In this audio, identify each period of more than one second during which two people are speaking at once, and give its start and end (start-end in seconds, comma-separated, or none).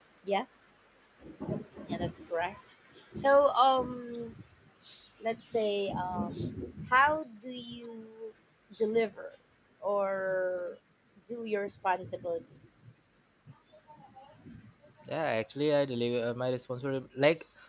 none